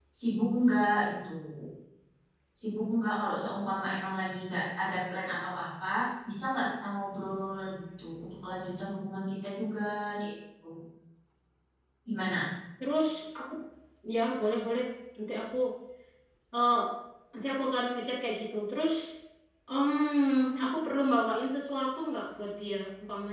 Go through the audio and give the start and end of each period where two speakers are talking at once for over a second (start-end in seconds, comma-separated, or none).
none